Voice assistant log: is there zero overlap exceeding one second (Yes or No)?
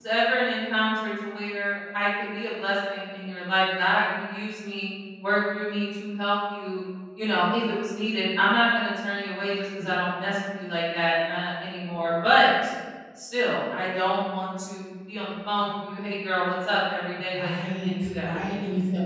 No